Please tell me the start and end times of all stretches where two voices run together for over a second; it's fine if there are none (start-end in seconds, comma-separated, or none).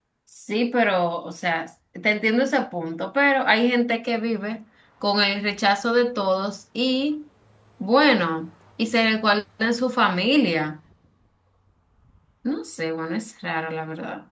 none